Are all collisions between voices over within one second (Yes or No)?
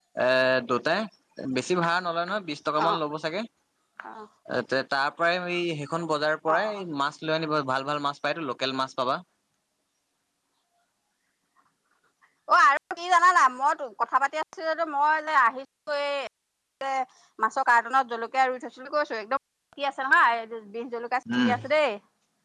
Yes